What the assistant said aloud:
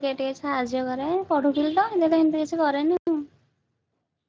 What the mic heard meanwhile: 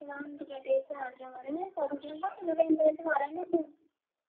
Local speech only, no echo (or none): none